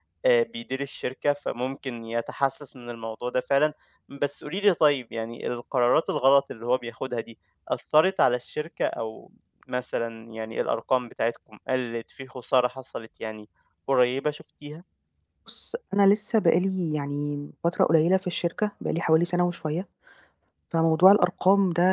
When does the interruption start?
none

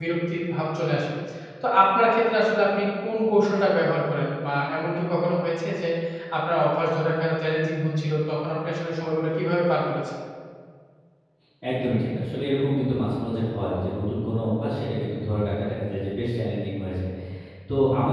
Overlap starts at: none

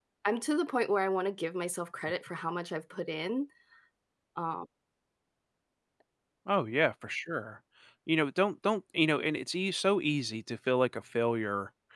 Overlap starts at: none

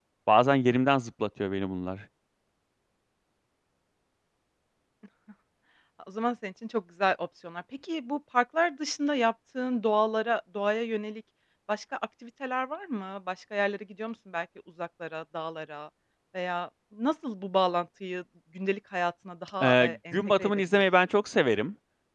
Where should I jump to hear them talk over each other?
19.6 s

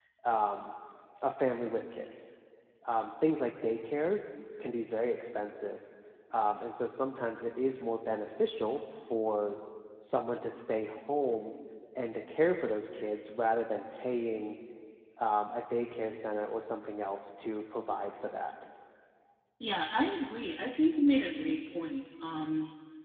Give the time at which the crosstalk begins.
none

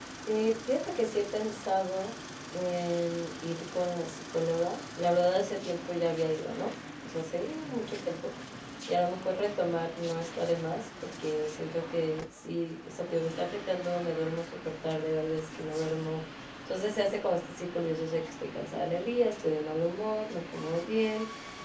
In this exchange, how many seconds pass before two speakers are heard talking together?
none

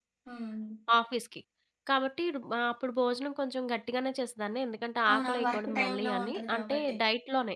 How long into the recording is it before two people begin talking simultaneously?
5.1 s

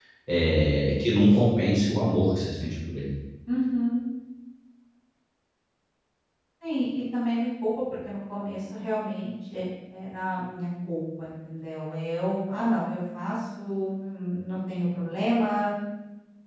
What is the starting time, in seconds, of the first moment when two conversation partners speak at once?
none

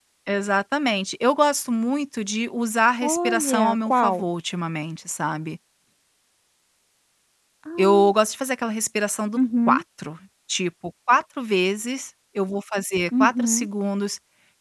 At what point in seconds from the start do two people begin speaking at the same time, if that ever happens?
3.0 s

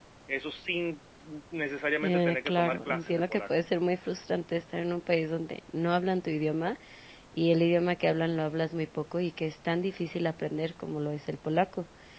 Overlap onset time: 2.0 s

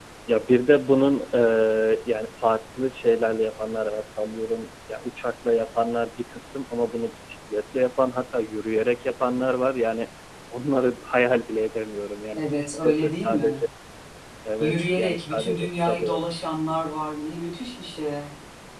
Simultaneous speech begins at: 12.4 s

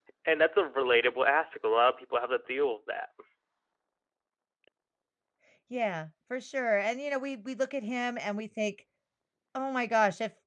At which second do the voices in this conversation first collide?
none

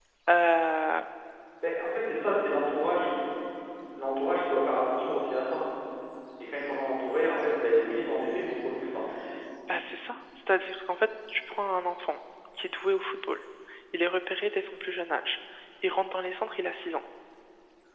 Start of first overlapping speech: none

